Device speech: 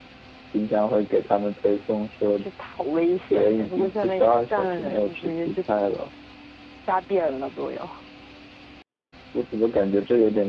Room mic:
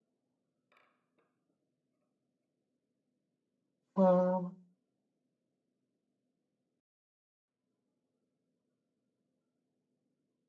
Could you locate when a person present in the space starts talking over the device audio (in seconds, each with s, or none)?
4.0 s